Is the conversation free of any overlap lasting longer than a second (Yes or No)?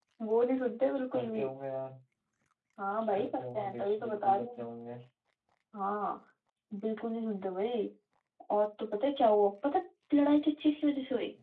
No